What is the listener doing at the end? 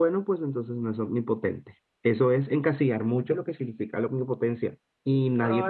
taking over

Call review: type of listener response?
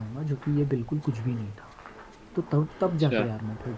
listening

